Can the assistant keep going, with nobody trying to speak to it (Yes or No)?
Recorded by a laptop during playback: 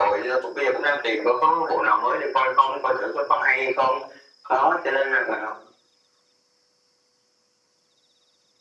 Yes